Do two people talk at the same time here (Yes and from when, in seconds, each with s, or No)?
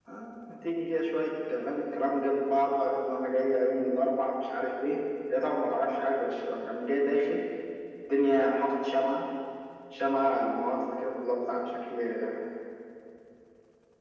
No